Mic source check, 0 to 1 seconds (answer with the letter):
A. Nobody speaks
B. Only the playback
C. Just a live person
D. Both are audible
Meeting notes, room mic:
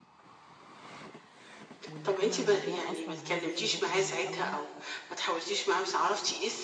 A